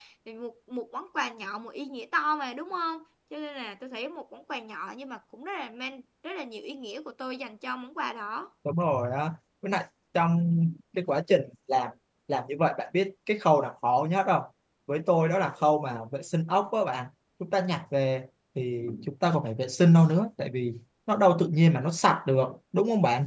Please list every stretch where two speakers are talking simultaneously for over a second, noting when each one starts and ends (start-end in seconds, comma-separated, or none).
none